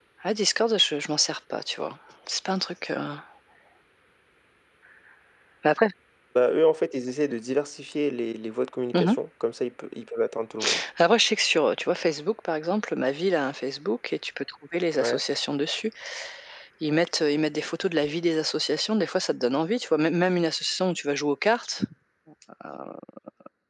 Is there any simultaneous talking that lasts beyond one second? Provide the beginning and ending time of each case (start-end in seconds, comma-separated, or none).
none